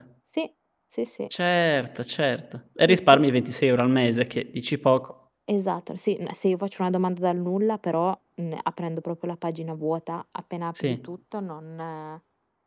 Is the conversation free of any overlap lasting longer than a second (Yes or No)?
Yes